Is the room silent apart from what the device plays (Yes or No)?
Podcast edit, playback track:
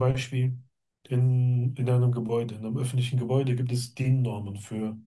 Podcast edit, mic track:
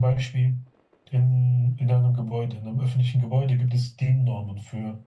Yes